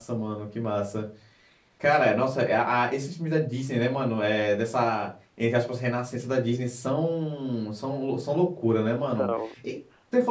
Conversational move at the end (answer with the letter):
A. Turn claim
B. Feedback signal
B